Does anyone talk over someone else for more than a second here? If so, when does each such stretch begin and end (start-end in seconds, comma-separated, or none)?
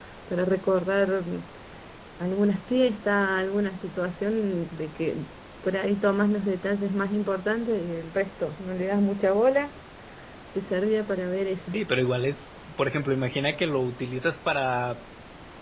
none